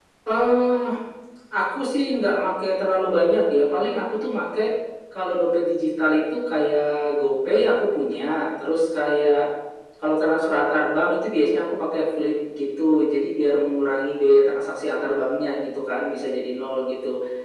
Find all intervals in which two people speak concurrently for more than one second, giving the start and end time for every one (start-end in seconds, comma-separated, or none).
none